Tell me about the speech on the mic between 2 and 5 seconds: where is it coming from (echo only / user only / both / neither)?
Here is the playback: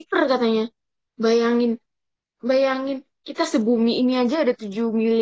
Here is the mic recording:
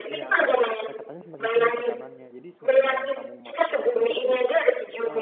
both